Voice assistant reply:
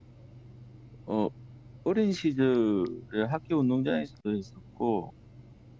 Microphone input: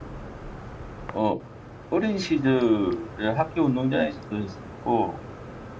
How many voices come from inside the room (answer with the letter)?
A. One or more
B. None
B